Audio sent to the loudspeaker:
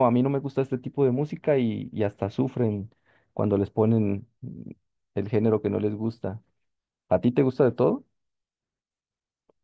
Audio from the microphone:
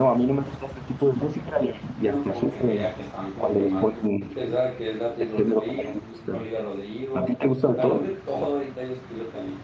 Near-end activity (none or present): present